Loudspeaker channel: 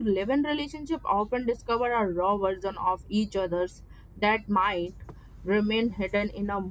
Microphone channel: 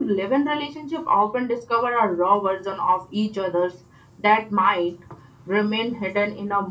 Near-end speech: none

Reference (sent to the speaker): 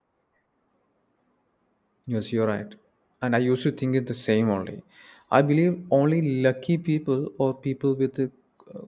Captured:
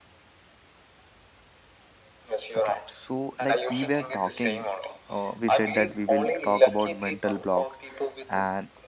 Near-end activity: present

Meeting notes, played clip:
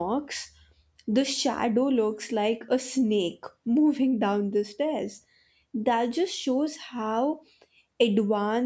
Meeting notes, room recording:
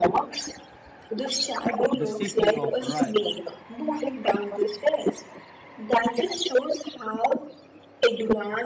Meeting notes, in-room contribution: present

